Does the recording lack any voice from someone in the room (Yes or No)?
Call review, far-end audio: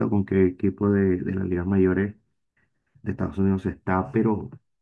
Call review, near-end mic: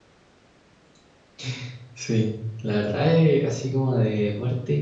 No